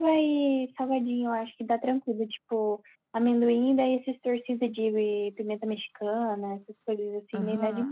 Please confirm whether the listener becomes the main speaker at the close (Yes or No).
Yes